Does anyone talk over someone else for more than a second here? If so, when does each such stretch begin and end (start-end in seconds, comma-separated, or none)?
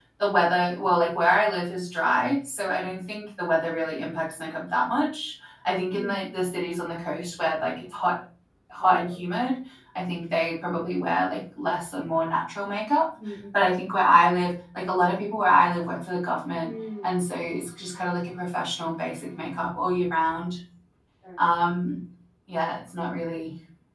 none